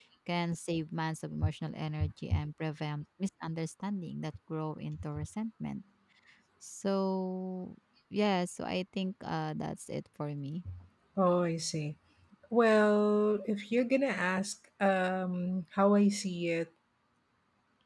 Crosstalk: none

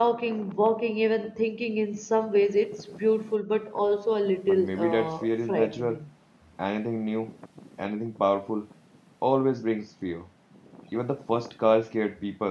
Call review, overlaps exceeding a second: present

